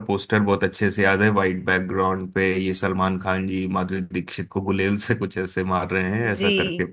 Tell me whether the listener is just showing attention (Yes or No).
No